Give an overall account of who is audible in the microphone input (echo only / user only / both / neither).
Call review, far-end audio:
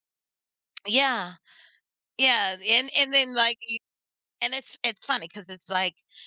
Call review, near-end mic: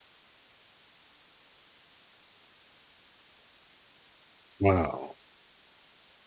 user only